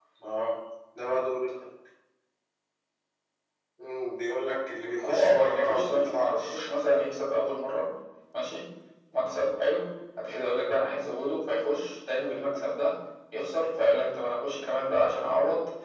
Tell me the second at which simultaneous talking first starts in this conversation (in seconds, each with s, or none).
5.0 s